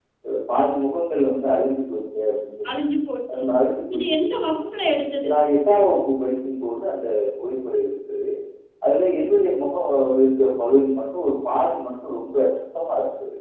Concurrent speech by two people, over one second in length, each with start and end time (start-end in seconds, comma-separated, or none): none